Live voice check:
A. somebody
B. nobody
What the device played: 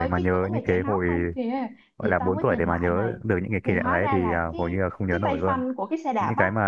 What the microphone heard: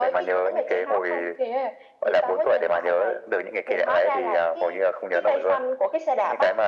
B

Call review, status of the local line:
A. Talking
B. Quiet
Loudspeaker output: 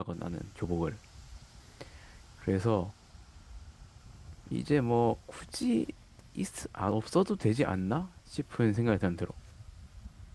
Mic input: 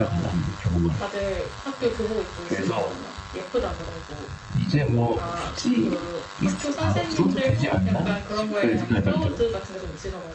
A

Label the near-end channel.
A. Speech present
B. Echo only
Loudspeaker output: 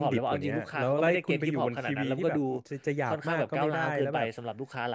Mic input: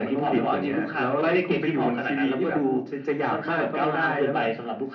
B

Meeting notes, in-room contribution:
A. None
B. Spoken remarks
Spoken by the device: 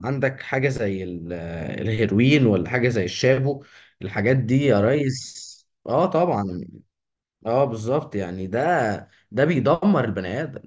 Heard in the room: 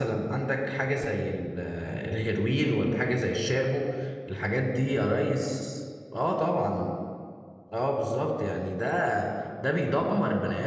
A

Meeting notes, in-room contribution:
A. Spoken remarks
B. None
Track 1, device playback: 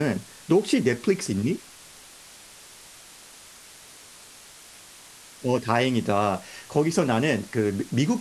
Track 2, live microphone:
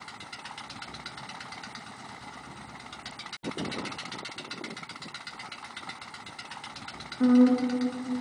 A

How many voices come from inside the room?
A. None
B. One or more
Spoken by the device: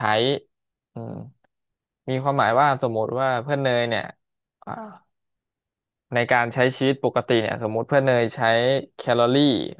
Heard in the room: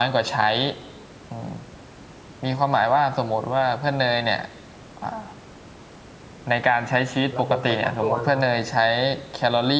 B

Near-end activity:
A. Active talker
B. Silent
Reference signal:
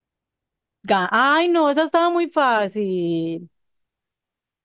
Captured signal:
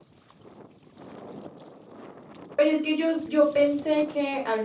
A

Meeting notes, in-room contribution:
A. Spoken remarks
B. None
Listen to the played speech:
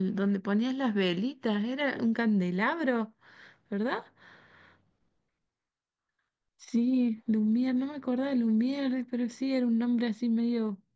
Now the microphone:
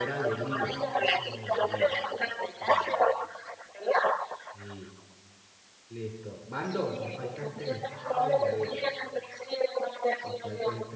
A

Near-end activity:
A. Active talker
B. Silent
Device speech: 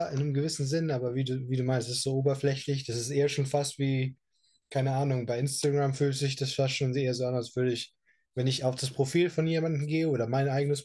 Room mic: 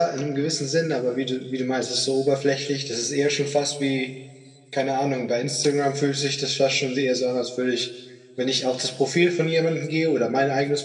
B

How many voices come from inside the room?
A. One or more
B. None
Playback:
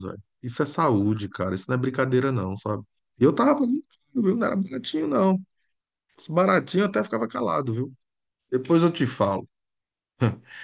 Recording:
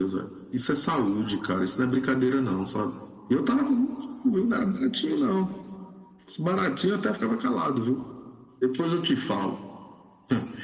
B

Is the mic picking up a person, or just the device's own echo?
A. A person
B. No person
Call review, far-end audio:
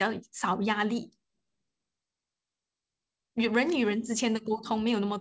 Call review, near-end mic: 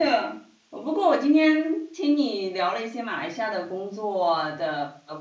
A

